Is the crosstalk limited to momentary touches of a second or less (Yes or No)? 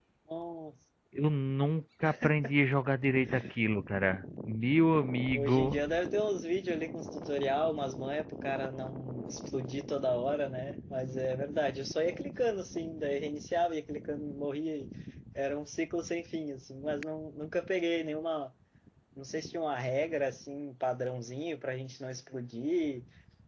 Yes